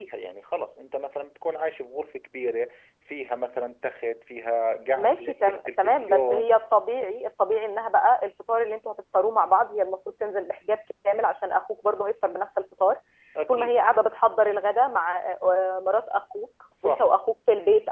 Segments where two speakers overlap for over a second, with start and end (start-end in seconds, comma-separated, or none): 5.0-6.5